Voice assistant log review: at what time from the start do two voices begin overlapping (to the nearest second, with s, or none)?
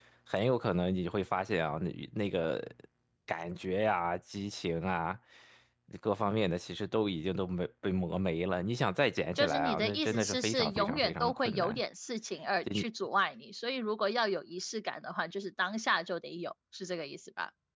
9 s